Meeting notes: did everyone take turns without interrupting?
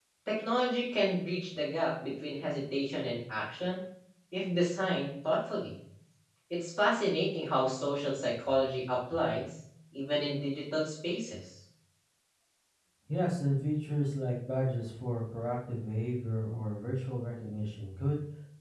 Yes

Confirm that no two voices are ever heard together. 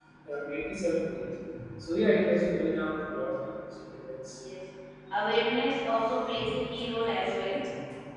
Yes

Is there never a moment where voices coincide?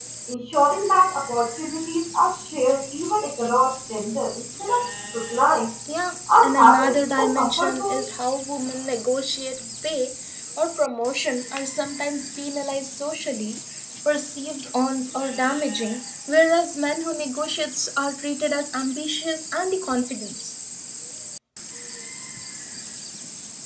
No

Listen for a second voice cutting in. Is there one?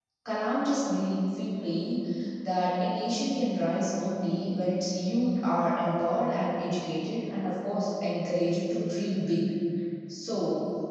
No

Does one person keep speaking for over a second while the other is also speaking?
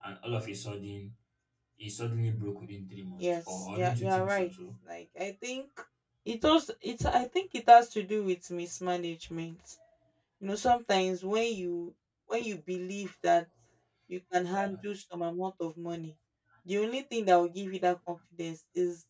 Yes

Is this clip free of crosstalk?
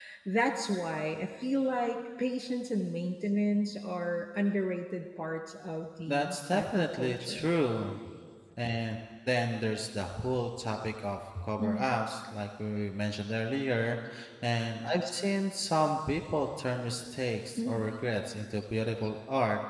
No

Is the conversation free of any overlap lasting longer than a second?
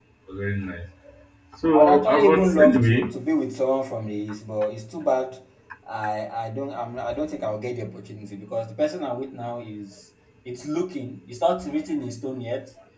No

